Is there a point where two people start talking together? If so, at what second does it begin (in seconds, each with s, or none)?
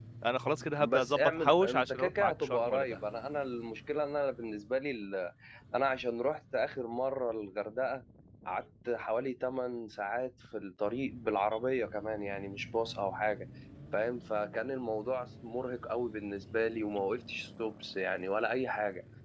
0.8 s